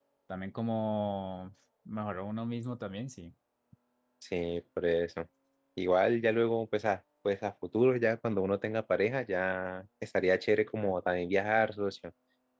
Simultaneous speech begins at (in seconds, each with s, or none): none